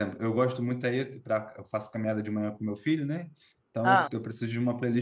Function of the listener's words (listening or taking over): listening